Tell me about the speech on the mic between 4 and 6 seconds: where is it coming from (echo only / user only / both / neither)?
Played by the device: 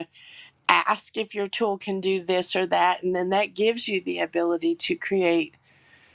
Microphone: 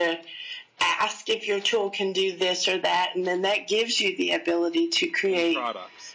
both